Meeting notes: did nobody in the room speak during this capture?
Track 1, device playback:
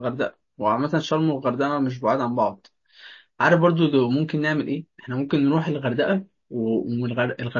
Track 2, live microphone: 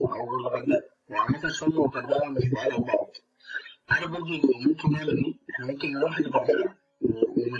Yes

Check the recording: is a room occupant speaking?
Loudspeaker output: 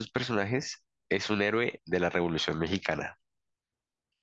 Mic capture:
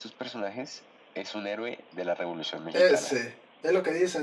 Yes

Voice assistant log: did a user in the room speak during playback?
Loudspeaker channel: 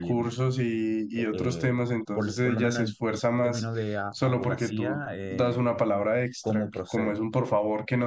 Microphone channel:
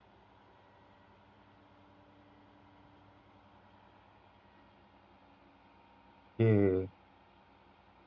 Yes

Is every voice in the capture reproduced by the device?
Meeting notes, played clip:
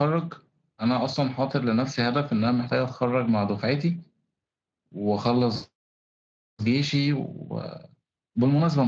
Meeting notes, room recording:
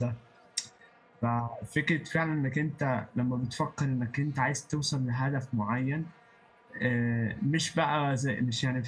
No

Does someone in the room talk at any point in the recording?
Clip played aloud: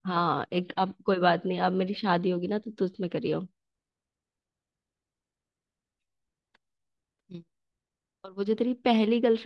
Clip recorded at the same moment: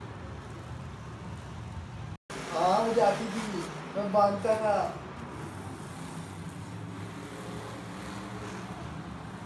Yes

